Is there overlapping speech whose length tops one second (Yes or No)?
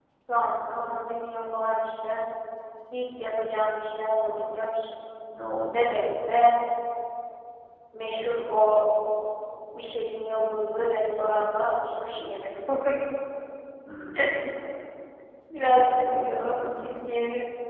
Yes